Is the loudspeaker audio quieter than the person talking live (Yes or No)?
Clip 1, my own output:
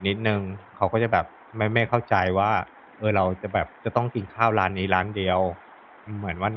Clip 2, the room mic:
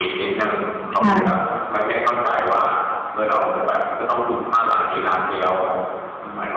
Yes